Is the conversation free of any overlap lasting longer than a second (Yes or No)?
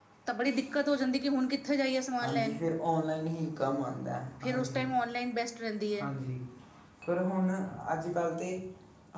Yes